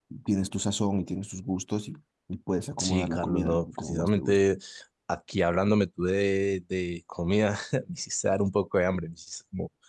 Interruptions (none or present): present